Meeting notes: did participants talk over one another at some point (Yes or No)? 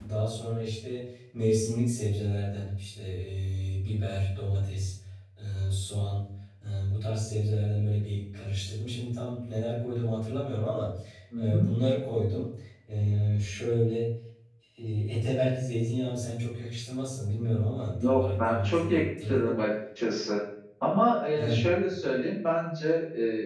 Yes